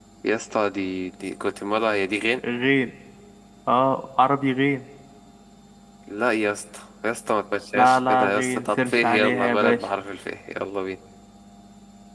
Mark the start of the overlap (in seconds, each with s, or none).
7.7 s